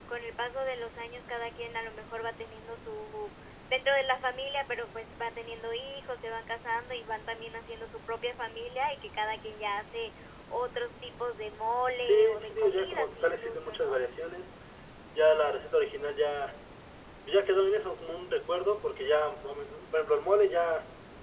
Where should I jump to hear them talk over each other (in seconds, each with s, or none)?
12.0 s